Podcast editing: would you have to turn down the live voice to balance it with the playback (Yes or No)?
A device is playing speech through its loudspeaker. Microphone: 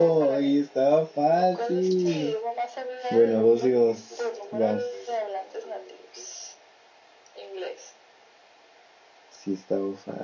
Yes